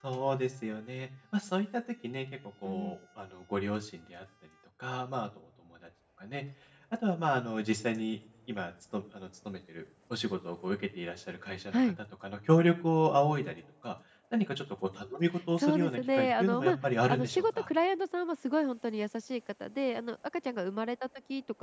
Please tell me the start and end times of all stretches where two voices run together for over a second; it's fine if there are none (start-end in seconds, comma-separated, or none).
15.6-17.7